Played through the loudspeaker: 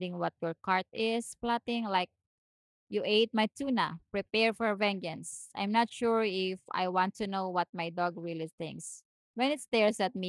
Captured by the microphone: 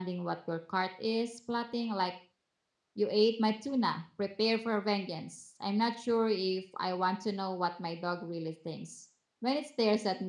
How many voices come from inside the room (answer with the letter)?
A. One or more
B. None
B